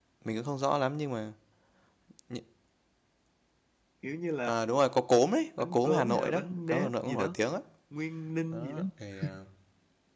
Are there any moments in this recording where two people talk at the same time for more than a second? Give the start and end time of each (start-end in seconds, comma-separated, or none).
5.6-7.3